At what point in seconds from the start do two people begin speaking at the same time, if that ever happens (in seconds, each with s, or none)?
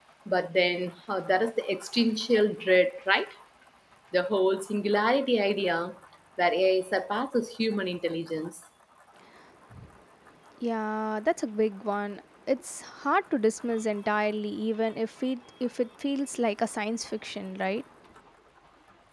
none